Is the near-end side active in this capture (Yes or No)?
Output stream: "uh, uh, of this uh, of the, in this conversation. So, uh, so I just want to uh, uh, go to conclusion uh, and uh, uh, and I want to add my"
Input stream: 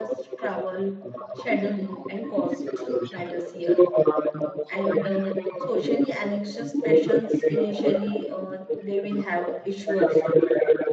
Yes